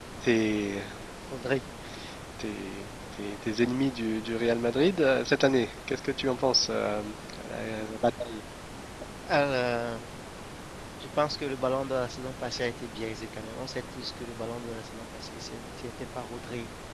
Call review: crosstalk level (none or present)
none